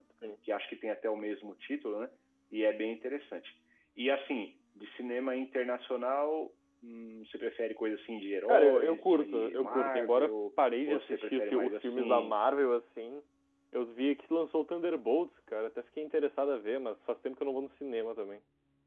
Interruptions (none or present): present